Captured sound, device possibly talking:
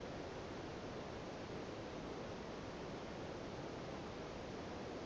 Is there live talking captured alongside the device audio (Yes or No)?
No